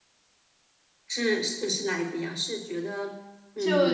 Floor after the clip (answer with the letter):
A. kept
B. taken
B